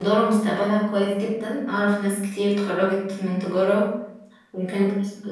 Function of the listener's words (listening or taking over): listening